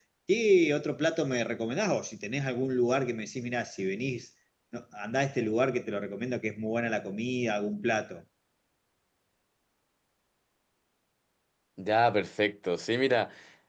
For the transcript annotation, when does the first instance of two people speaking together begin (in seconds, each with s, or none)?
none